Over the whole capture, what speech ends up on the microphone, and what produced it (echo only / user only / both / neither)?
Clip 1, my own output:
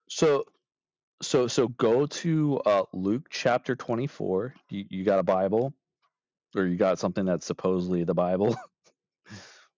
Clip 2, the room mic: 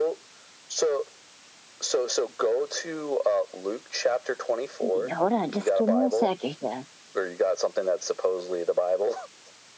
both